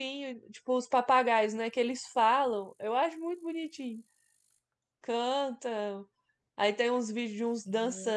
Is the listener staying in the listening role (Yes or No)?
Yes